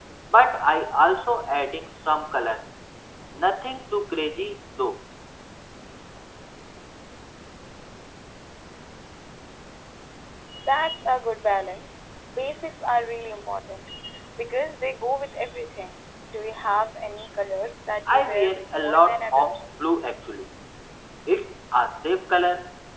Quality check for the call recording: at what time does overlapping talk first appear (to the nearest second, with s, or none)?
18 s